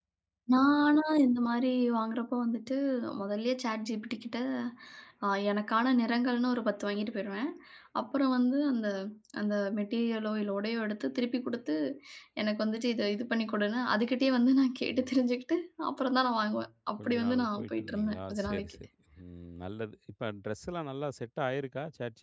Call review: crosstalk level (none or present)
present